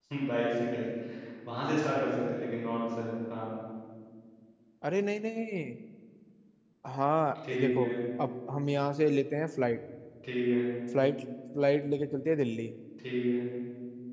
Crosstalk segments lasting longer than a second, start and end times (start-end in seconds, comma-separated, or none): none